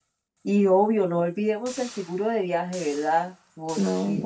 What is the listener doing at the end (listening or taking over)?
listening